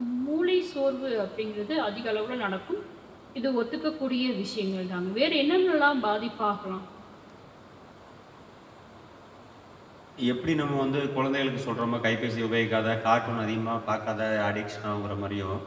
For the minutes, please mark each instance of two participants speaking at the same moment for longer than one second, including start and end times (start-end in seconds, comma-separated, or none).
none